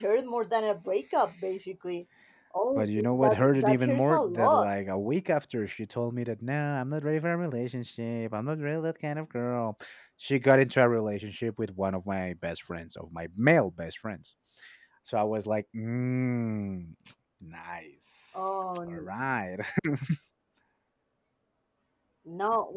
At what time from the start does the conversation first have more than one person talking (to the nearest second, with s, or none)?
3 s